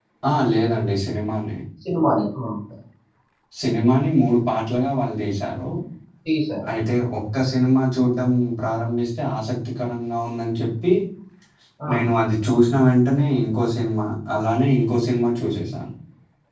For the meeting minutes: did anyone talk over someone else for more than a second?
No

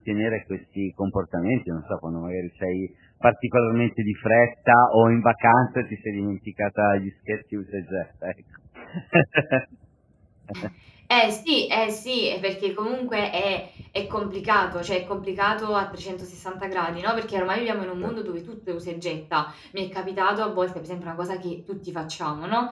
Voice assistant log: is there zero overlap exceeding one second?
Yes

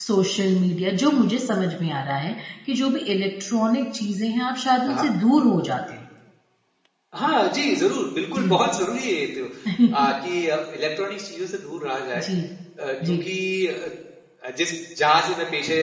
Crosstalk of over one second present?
No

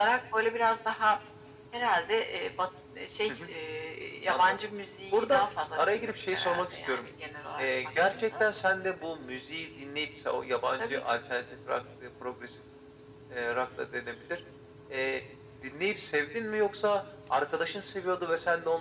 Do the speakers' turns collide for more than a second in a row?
Yes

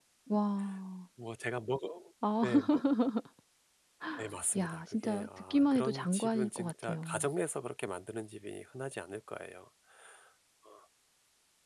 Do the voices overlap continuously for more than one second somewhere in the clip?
Yes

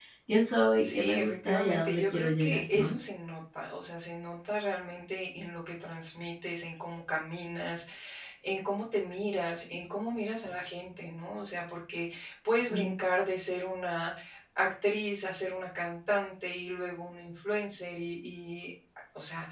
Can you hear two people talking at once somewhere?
Yes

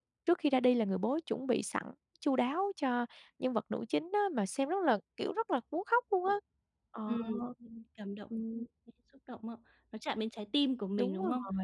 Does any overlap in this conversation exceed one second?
No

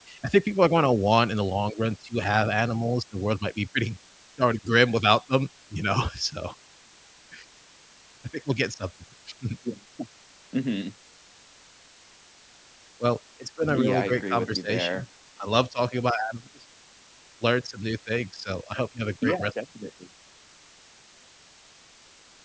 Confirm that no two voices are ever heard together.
No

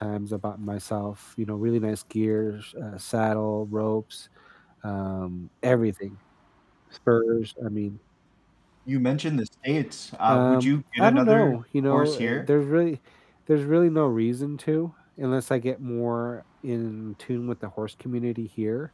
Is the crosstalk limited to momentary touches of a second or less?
No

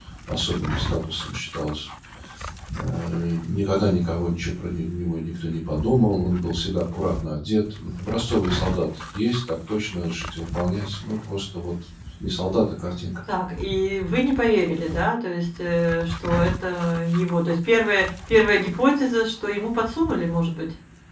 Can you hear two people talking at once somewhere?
No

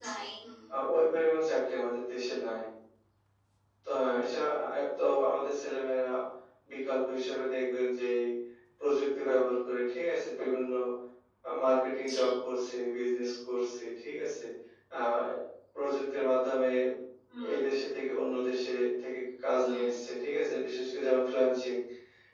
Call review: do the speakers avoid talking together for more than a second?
Yes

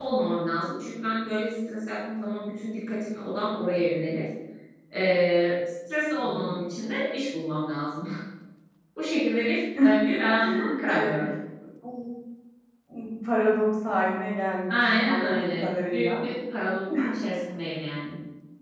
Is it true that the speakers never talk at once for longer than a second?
No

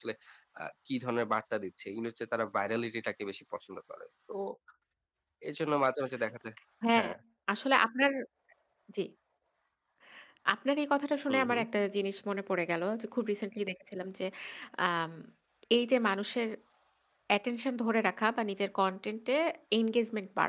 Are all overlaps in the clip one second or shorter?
Yes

